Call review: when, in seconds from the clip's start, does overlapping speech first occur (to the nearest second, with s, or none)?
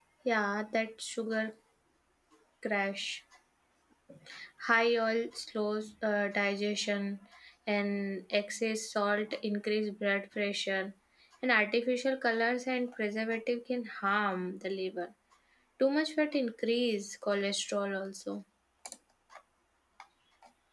none